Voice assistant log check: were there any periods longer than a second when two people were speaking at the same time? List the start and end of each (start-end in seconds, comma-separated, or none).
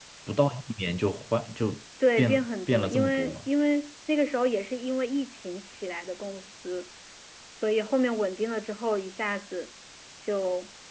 2.2-3.5